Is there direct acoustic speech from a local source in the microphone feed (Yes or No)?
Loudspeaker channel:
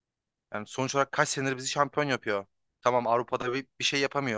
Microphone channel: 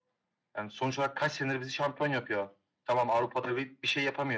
No